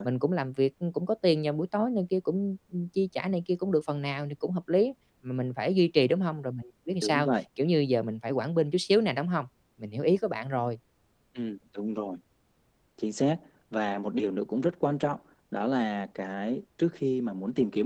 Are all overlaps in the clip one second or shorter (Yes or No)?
Yes